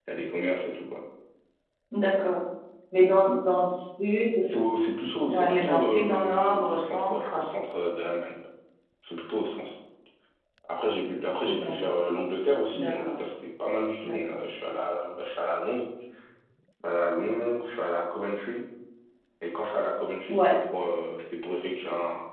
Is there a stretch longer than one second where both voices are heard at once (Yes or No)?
Yes